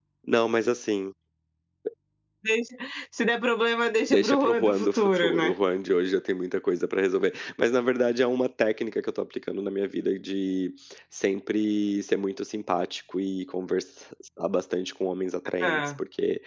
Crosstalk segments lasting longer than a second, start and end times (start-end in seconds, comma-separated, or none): 4.1-5.5